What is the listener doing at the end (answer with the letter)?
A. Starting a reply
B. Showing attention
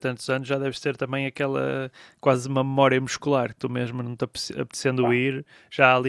B